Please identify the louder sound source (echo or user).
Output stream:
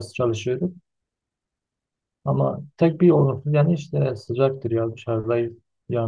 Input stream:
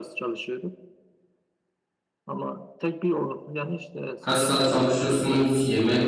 user